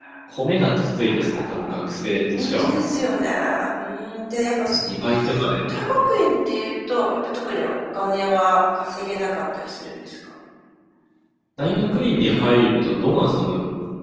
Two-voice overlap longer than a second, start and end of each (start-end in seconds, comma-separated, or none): none